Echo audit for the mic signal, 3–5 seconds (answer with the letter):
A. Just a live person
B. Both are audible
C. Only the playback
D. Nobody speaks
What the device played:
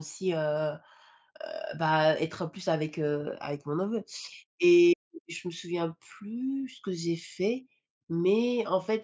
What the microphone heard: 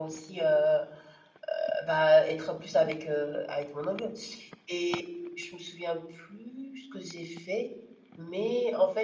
C